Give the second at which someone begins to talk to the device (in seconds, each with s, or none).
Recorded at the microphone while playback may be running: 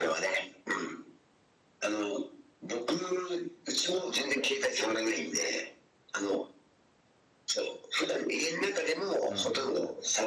9.2 s